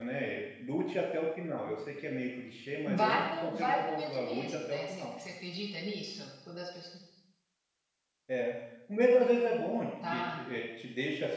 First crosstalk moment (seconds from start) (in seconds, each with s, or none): 2.9 s